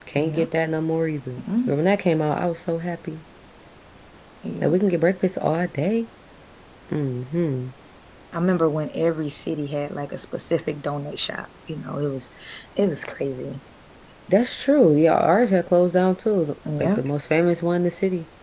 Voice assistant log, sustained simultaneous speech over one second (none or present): none